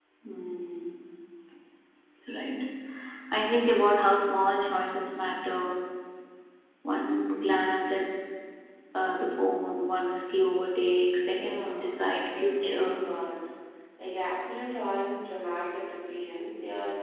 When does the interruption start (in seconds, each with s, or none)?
11.3 s